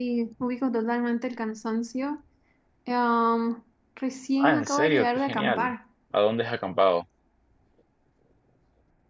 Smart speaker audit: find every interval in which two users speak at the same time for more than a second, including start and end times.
4.4-5.7

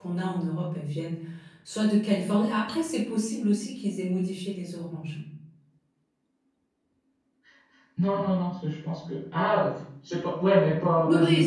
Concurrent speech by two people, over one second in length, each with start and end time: none

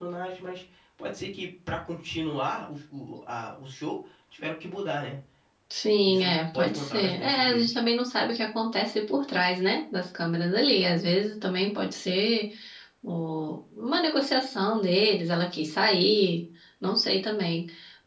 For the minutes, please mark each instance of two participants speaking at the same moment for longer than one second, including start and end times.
6.0-7.8

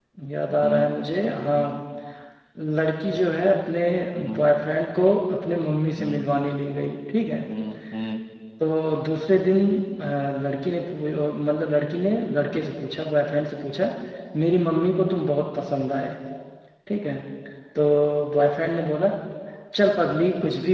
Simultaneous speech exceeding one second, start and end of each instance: none

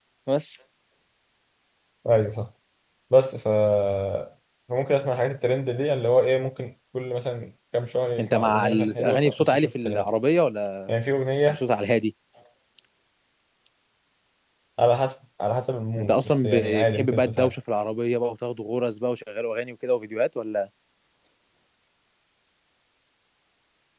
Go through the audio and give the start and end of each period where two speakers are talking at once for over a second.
8.2-10.1, 16.0-17.5

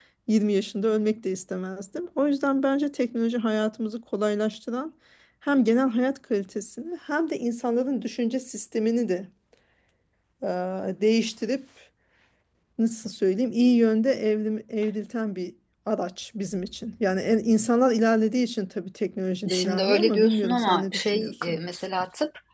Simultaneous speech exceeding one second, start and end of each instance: 19.5-21.6

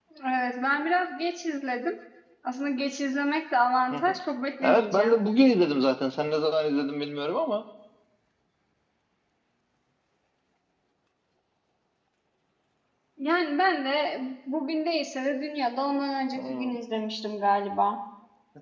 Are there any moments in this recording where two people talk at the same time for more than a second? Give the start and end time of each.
none

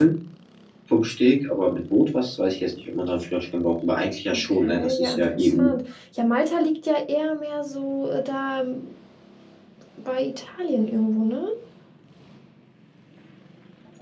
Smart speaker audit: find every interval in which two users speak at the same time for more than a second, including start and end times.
4.3-5.7

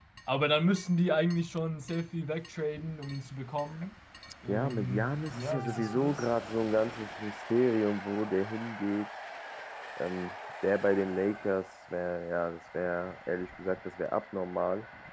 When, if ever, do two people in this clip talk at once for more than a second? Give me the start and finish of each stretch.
4.5-6.3

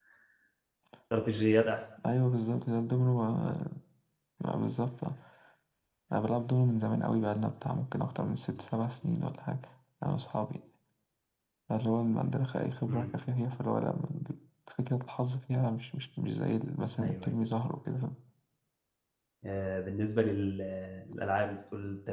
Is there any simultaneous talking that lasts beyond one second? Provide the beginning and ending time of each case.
none

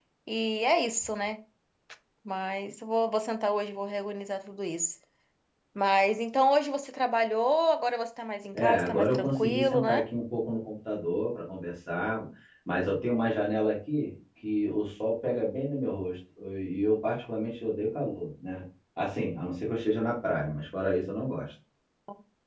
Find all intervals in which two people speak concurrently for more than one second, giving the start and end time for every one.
8.5-10.0

